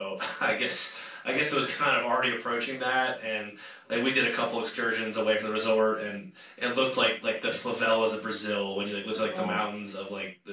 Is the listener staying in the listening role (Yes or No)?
Yes